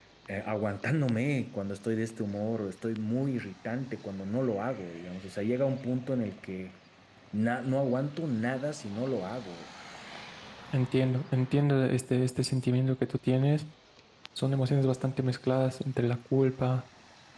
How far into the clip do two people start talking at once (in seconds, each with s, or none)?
none